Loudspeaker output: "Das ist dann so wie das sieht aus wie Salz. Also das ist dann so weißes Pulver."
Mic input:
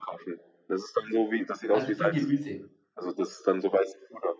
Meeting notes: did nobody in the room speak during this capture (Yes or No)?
No